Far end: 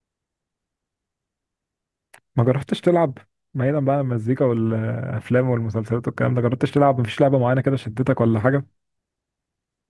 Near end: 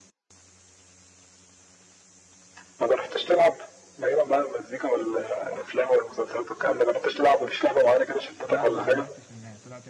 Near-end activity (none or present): present